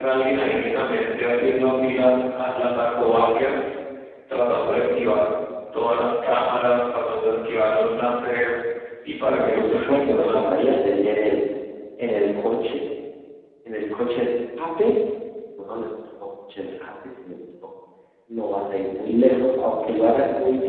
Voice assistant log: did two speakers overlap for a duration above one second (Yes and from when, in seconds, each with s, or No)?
Yes, from 9.3 s